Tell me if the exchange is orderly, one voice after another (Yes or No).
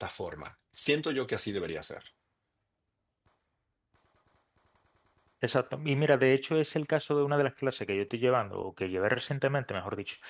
Yes